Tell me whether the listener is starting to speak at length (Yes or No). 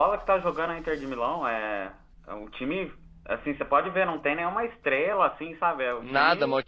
Yes